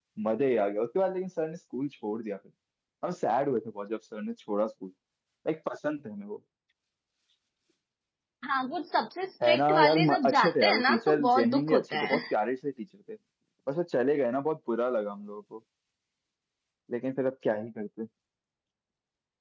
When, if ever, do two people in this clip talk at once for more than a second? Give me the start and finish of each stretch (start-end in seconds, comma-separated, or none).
9.4-12.2